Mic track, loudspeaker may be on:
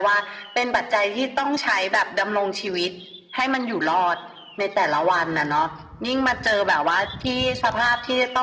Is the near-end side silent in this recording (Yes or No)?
Yes